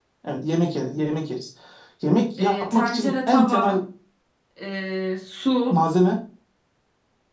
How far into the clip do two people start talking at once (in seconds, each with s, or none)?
2.4 s